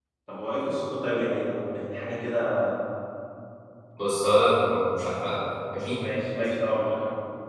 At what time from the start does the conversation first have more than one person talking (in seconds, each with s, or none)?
none